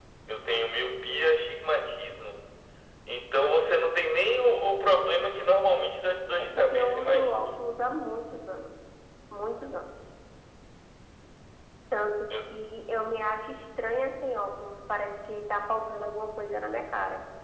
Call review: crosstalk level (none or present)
present